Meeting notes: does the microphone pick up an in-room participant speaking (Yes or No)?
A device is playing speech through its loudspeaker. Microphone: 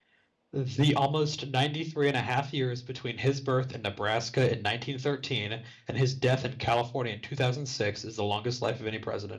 Yes